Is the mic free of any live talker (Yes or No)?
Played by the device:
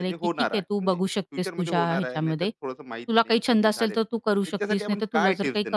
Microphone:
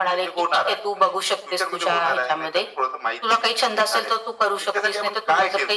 Yes